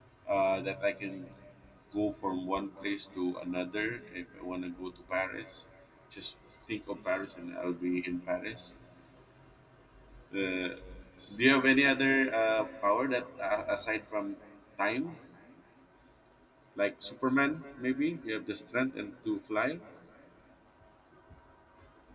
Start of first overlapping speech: none

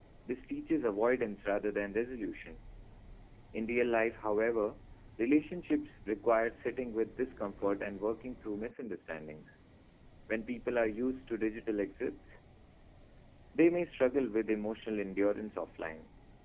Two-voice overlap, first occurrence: none

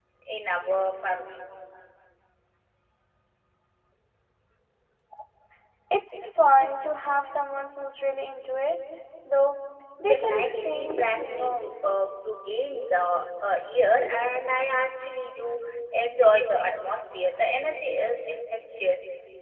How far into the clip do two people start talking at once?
10 s

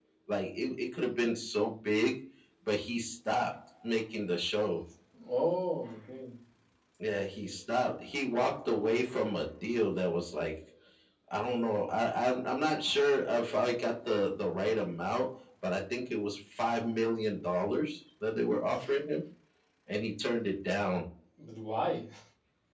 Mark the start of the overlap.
none

